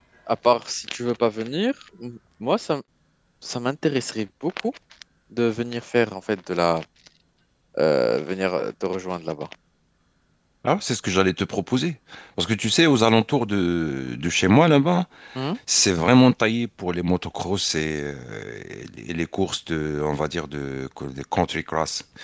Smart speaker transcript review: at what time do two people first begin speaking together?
none

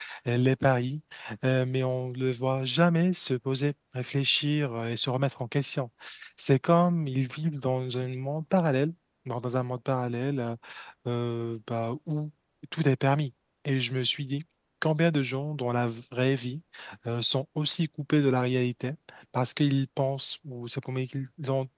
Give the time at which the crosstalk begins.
none

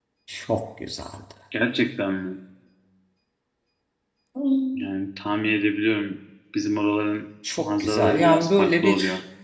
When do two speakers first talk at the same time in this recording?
7.4 s

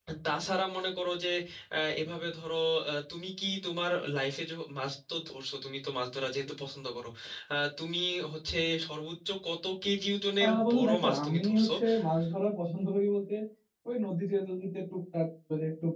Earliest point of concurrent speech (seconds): 10.4 s

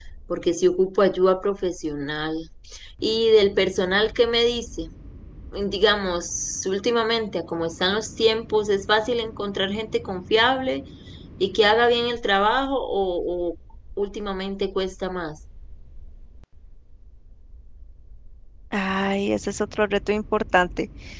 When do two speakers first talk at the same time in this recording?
none

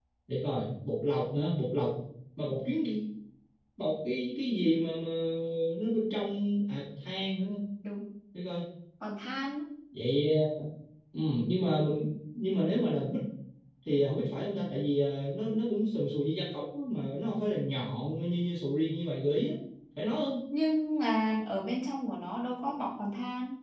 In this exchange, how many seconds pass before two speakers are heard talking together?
none

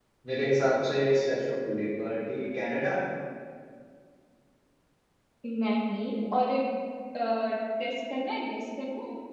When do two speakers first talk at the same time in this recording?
none

